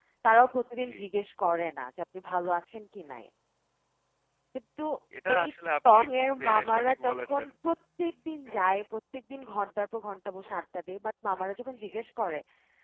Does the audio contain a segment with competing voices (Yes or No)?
Yes